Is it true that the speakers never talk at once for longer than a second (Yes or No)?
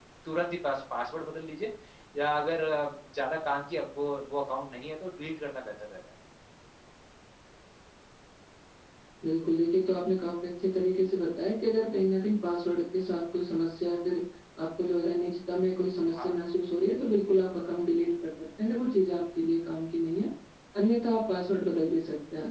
Yes